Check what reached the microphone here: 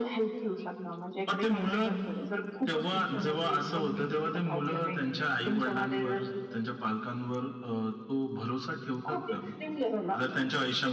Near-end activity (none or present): none